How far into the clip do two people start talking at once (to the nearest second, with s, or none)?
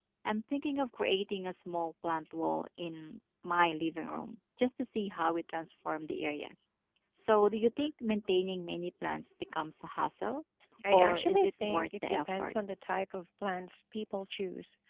11 s